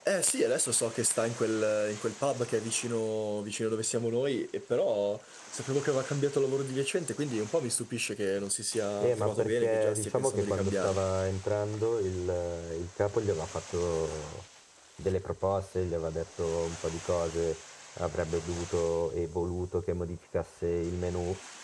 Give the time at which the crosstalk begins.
9.0 s

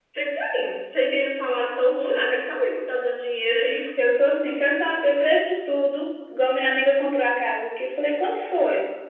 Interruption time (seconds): none

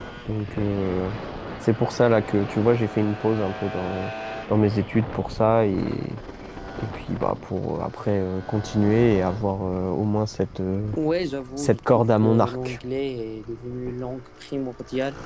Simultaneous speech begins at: 11.6 s

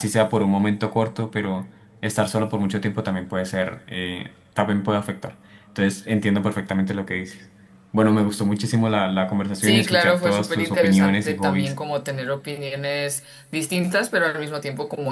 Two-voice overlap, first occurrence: 9.6 s

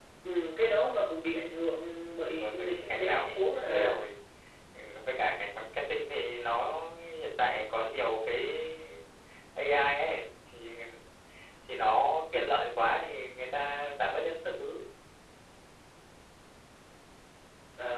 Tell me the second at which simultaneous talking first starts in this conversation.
2.4 s

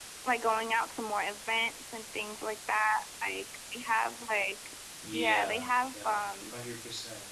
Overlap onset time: 5.0 s

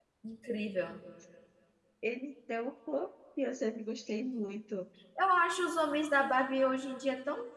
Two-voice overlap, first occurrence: none

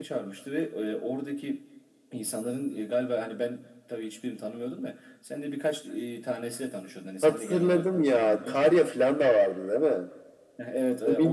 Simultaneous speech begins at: 7.2 s

